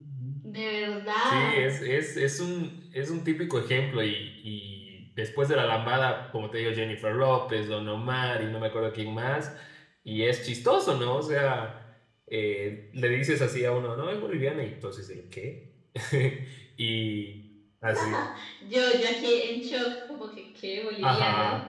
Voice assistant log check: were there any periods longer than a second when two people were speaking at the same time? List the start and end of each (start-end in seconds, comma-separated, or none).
none